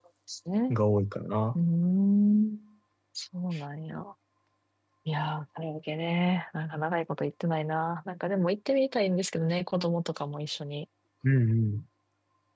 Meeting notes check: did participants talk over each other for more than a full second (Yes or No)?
No